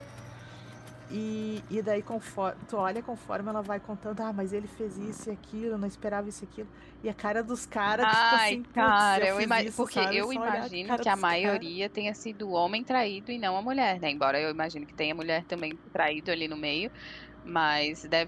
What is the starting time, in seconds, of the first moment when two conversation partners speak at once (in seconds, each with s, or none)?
8.0 s